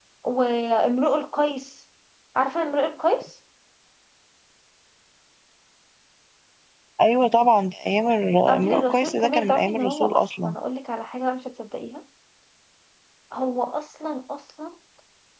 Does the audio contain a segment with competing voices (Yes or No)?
Yes